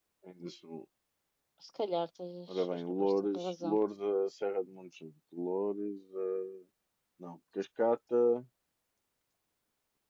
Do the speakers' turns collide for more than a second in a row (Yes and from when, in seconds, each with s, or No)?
Yes, from 2.5 s